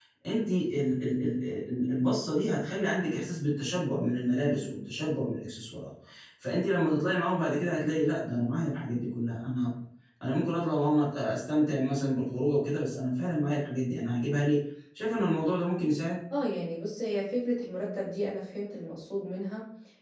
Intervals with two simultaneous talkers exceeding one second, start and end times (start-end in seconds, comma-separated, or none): none